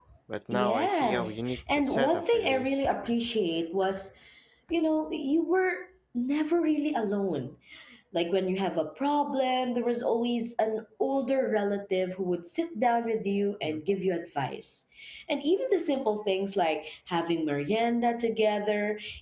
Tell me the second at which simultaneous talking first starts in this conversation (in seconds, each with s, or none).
0.5 s